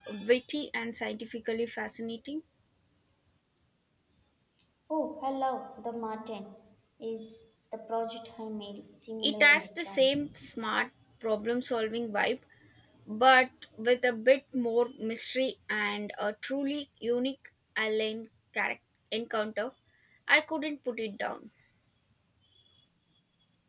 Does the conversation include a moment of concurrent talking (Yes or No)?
Yes